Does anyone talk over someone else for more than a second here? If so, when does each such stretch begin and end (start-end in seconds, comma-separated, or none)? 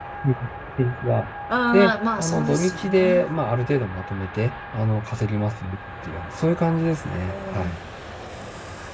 1.7-3.3